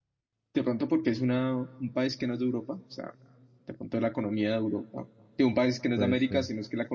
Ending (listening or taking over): listening